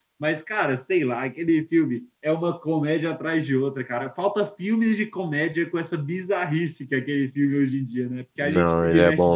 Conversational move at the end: taking over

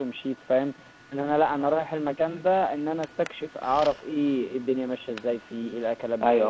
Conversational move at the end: taking over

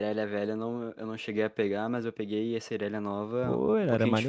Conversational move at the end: taking over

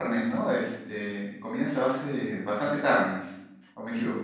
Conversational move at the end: taking over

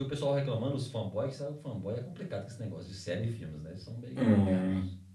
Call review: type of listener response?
taking over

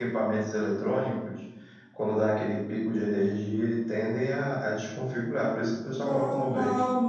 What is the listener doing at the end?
taking over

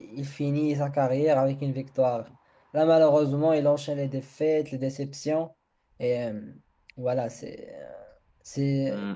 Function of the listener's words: taking over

